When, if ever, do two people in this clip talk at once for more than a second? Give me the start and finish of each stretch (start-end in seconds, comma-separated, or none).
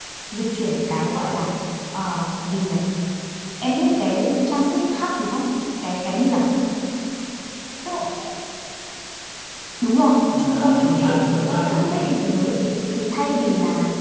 10.4-12.1